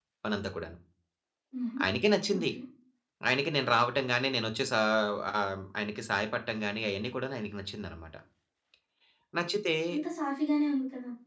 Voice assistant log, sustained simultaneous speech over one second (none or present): none